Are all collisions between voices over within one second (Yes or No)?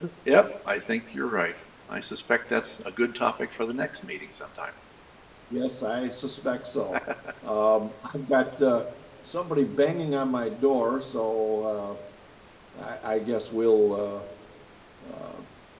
Yes